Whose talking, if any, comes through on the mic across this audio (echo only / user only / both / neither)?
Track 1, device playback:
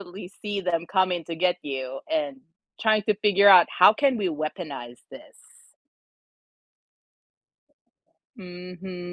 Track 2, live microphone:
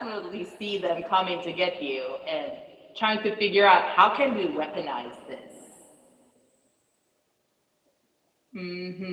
echo only